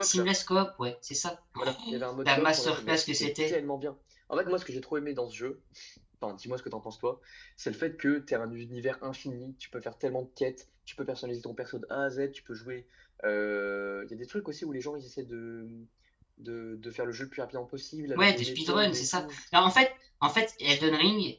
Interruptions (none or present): present